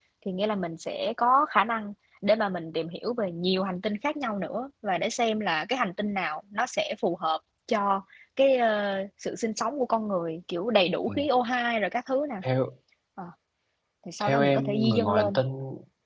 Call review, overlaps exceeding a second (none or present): present